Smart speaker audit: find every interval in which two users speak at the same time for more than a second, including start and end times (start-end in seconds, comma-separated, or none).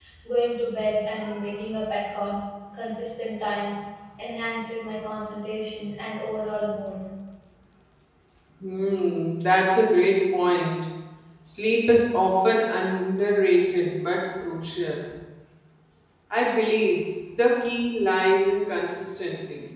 none